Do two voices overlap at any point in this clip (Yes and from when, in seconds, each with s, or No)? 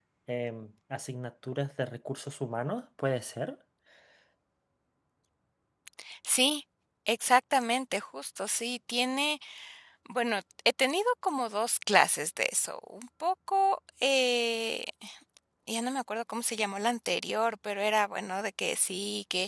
No